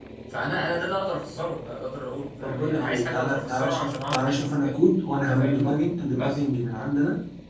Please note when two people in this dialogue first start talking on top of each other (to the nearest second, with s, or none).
2 s